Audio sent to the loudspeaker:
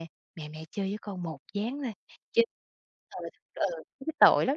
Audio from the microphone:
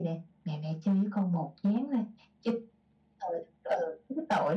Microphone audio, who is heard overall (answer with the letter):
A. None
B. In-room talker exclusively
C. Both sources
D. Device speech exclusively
D